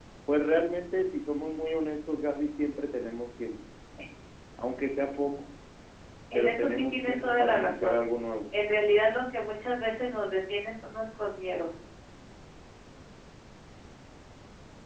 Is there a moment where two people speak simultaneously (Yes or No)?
Yes